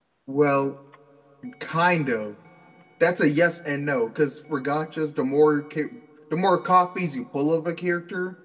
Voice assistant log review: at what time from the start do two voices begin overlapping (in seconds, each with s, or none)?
none